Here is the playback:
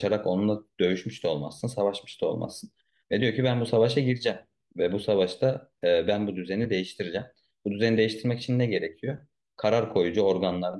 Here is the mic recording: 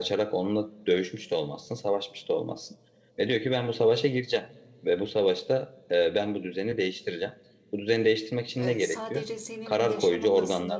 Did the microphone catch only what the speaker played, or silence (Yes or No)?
No